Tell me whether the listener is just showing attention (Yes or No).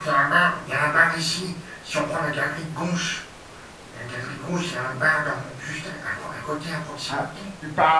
No